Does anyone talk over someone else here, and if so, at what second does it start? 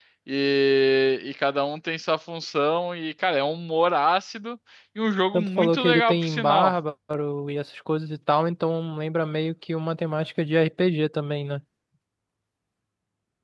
5 s

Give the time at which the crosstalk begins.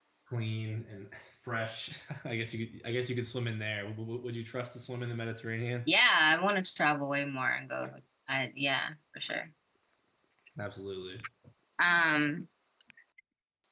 none

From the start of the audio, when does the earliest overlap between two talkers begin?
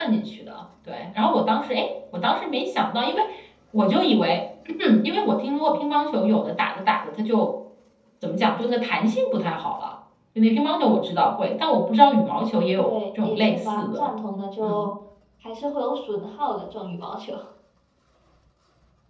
13 s

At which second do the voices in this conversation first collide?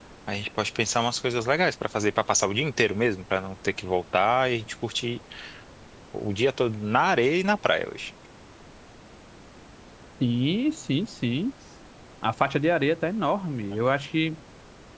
none

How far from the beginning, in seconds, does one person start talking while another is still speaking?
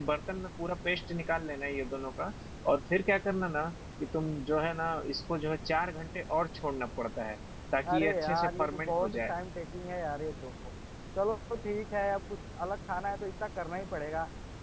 8 s

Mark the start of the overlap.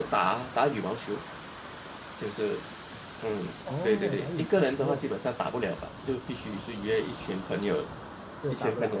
4 s

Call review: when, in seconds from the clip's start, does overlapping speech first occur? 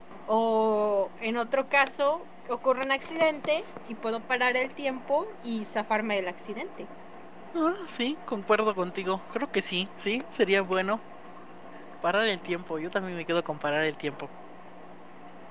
none

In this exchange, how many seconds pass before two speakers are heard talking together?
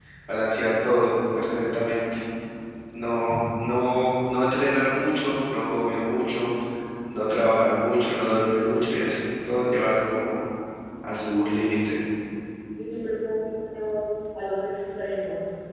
none

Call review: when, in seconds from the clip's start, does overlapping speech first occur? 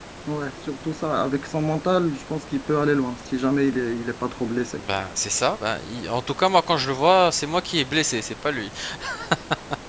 none

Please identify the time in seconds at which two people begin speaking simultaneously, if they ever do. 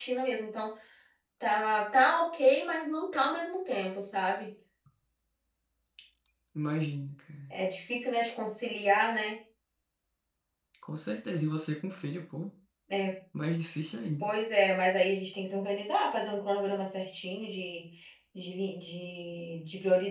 none

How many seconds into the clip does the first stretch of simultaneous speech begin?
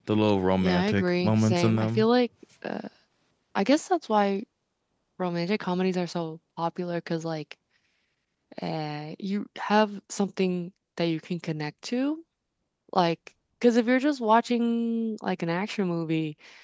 1 s

